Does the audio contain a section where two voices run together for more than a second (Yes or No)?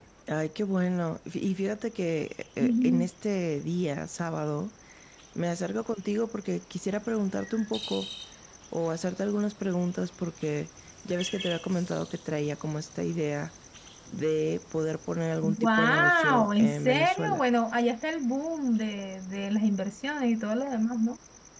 Yes